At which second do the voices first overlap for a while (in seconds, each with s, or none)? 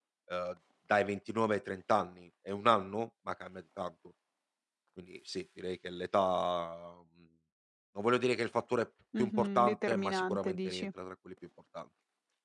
9.1 s